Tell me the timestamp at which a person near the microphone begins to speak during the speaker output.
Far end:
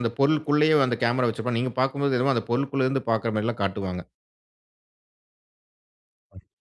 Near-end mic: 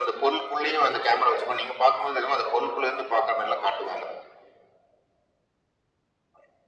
none

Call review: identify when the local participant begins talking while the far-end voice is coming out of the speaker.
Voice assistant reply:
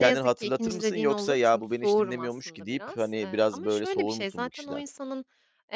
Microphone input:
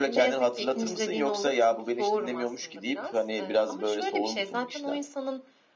none

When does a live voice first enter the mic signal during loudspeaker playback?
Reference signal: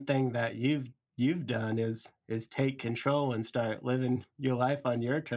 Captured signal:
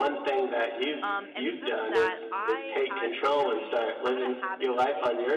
1 s

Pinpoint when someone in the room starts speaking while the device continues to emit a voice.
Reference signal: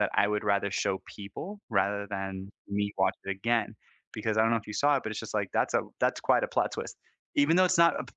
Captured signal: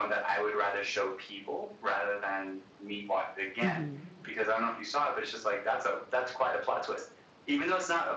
4 s

